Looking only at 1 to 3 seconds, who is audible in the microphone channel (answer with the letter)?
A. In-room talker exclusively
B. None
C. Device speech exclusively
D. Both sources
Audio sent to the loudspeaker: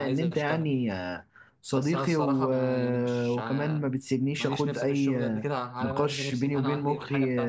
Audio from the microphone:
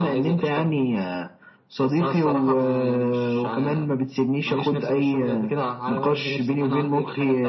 C